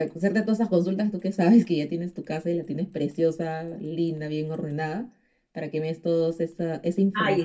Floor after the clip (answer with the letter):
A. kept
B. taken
B